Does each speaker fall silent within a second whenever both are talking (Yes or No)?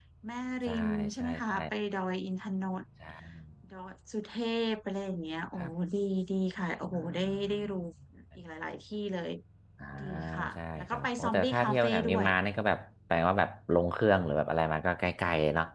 No